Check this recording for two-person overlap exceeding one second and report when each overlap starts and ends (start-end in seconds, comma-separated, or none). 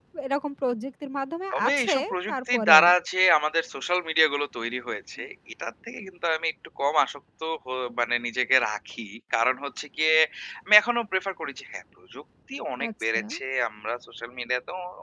1.5-2.8